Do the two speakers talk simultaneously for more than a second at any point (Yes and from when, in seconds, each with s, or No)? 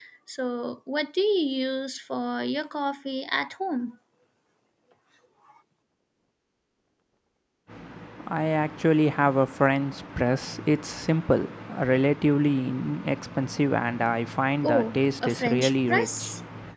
Yes, from 14.6 s